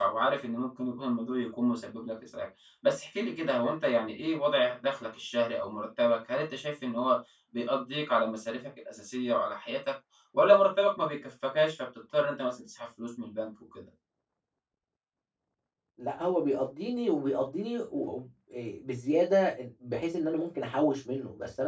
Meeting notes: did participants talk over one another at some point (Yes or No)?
No